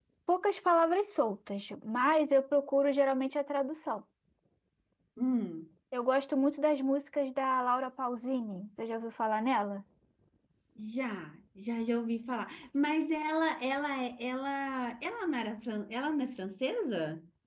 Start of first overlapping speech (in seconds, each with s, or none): none